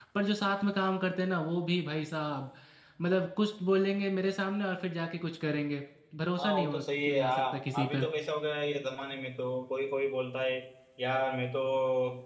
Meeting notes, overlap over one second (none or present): present